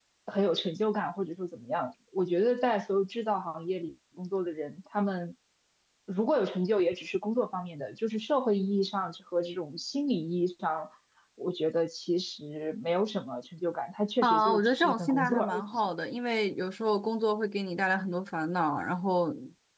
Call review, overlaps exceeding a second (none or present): present